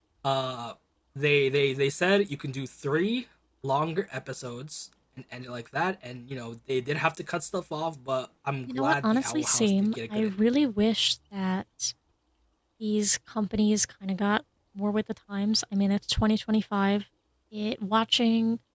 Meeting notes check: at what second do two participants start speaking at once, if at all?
8.7 s

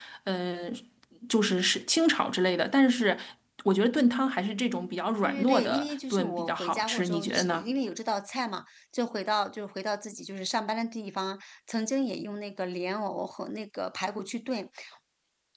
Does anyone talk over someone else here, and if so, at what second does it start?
5.2 s

